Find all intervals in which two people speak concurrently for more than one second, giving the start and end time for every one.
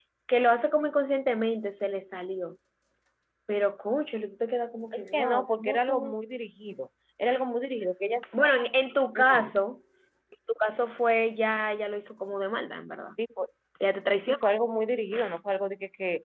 4.9-6.1

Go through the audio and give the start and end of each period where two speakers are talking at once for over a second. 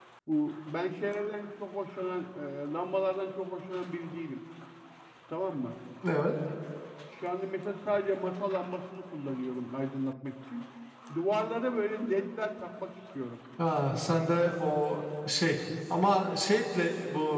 none

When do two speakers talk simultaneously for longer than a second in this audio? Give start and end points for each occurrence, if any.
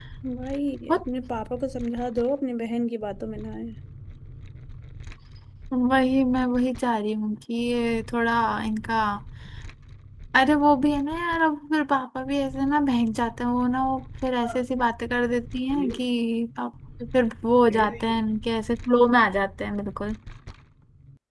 none

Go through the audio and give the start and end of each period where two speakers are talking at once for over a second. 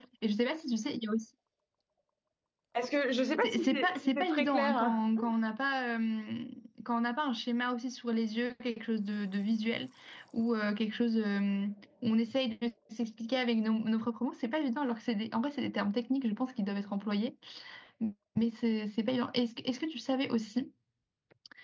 3.4-5.0

